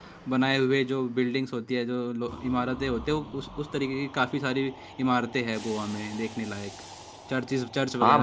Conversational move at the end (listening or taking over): taking over